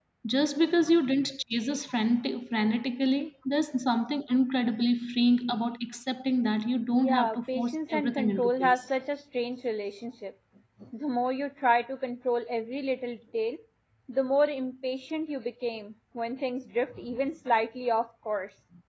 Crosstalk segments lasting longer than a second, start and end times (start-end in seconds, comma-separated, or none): 6.9-8.8